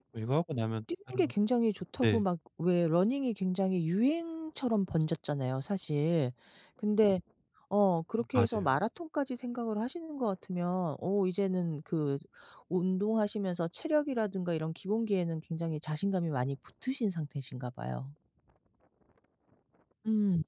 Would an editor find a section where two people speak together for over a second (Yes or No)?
No